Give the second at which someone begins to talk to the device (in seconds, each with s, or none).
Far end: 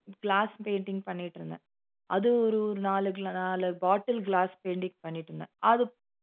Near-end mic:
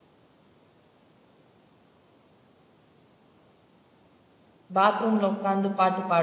4.8 s